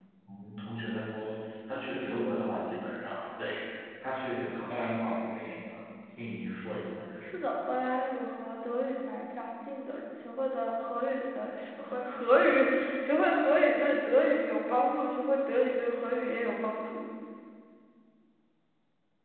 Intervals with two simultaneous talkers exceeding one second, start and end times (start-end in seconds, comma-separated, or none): none